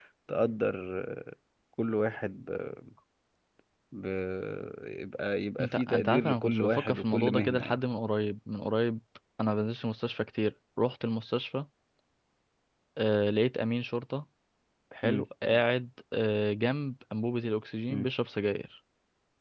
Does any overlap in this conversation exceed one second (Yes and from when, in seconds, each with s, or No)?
Yes, from 5.6 s